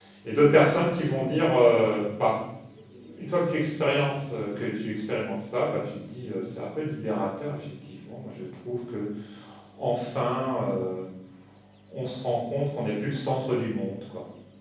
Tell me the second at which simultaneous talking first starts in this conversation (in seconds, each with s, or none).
none